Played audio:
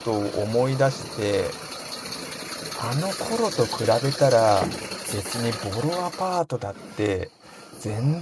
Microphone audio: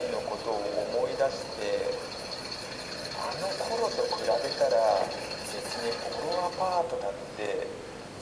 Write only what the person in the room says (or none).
none